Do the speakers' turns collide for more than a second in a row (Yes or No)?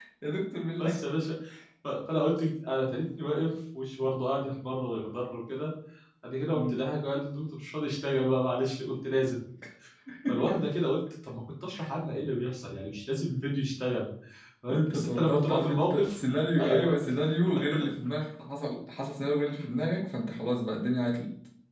Yes